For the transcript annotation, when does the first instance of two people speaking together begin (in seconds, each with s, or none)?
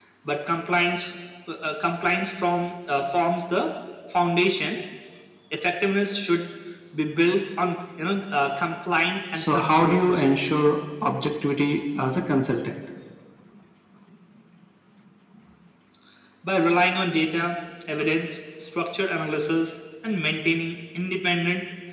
9.4 s